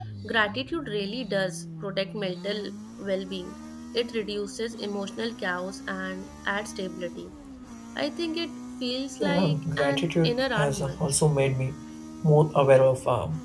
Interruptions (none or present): present